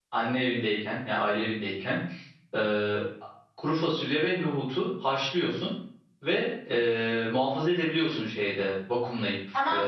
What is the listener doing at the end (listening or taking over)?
taking over